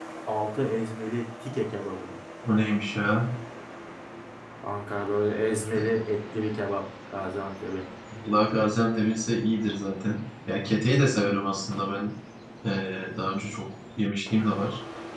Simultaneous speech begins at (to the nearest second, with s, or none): none